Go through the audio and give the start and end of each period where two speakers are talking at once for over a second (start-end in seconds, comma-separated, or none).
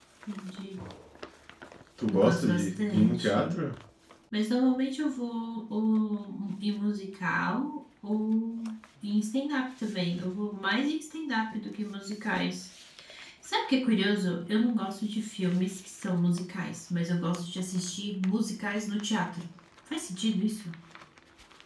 2.1-3.6